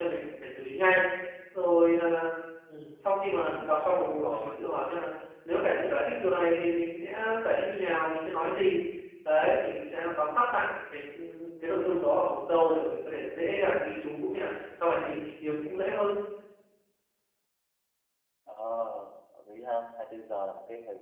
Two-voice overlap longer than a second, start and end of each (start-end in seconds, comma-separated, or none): 3.4-4.6